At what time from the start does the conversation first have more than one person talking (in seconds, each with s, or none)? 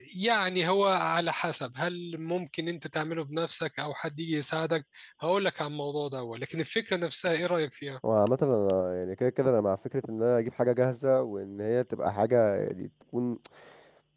none